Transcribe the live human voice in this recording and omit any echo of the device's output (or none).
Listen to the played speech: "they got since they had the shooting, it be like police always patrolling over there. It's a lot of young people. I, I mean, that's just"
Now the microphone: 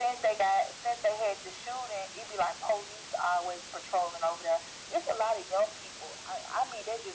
none